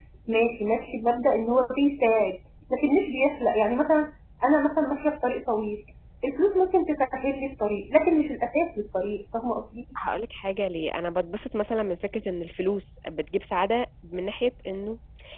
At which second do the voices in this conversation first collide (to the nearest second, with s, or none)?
none